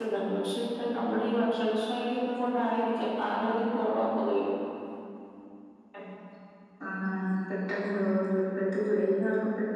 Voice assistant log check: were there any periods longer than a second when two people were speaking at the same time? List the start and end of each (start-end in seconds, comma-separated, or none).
none